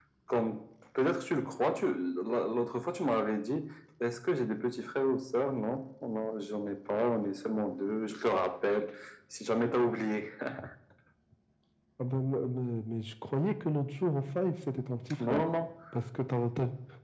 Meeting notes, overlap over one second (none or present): none